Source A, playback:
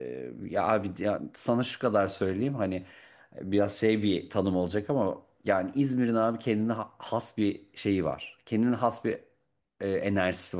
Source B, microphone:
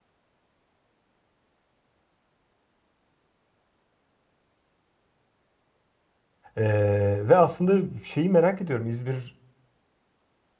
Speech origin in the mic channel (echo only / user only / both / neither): user only